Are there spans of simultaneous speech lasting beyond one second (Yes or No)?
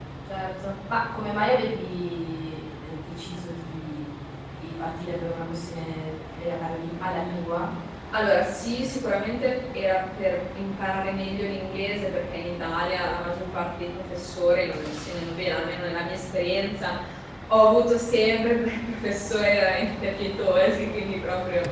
No